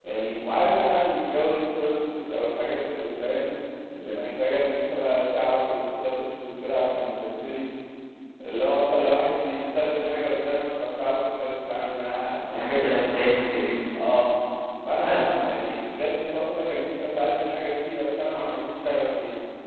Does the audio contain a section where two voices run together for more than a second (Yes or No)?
No